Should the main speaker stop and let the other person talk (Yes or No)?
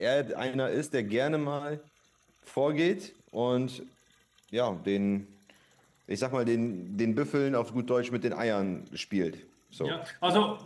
Yes